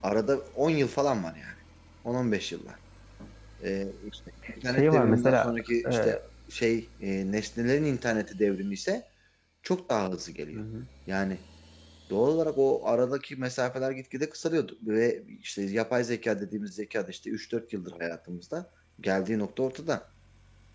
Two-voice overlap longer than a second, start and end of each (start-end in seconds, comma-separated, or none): 4.7-6.2